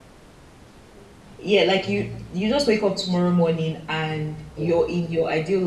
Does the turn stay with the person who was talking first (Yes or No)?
Yes